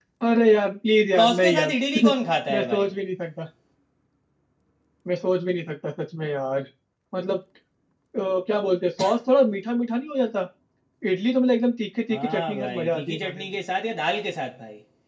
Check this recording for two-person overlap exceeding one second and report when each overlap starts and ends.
12.1-13.4

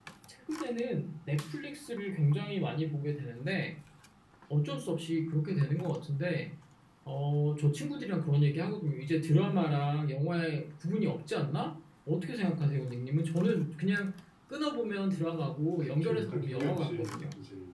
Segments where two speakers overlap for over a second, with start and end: 16.0-17.2

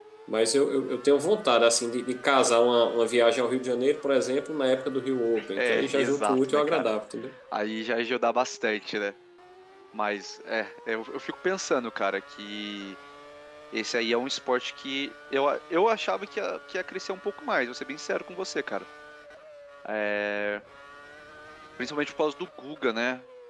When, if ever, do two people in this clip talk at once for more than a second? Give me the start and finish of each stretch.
5.6-6.9

